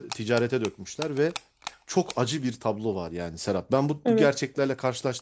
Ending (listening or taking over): listening